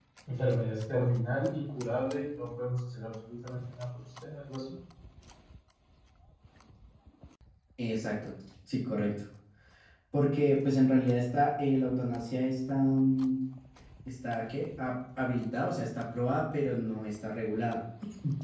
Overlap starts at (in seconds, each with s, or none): none